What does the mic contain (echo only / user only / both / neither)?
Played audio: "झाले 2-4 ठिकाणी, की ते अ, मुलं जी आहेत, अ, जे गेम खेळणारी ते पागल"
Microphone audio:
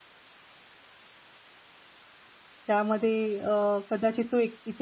user only